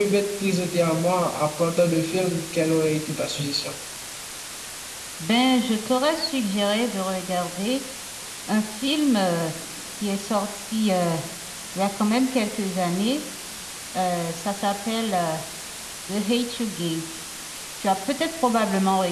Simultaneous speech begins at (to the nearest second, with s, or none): none